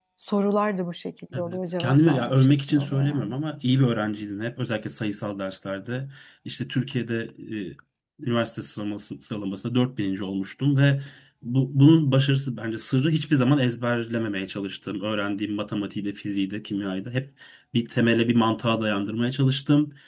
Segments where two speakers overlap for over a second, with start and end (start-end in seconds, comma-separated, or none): 1.3-3.3